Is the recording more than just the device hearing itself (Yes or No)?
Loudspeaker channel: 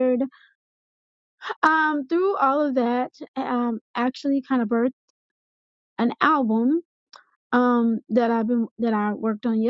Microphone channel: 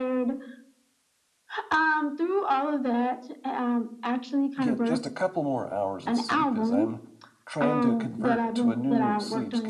Yes